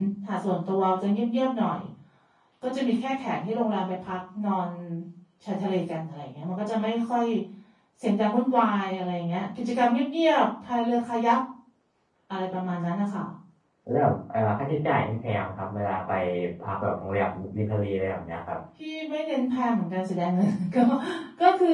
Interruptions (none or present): none